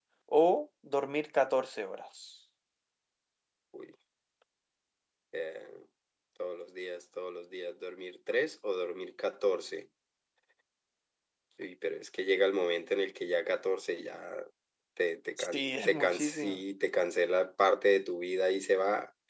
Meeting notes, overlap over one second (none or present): present